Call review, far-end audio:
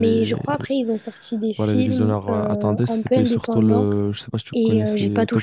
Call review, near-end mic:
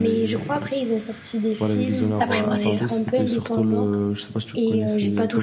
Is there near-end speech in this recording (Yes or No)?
Yes